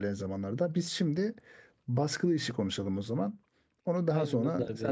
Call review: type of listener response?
taking over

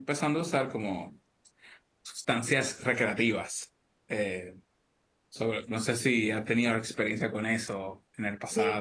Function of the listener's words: taking over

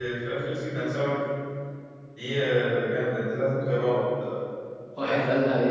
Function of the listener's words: taking over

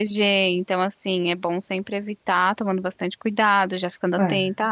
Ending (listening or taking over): listening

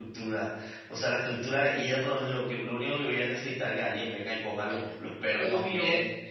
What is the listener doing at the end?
taking over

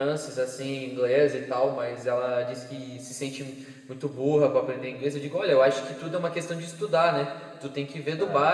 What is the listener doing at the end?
listening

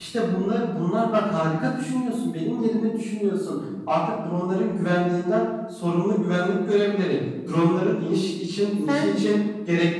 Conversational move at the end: listening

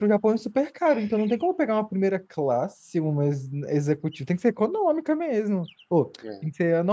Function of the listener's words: listening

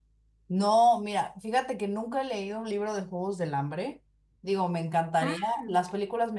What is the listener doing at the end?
listening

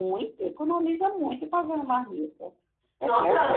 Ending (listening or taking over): taking over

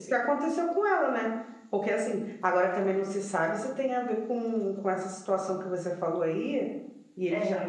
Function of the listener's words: listening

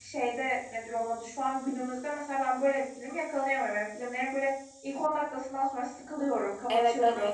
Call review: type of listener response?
taking over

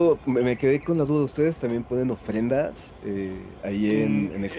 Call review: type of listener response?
taking over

